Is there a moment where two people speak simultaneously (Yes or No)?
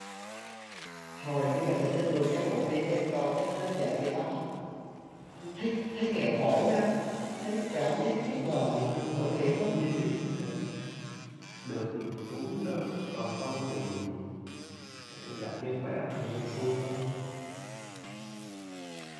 Yes